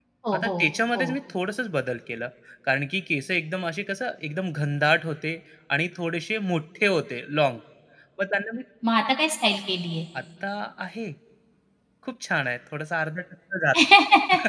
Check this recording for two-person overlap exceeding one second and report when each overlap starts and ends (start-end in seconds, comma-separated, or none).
none